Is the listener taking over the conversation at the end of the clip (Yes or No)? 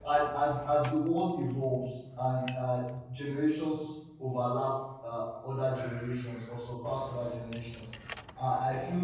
No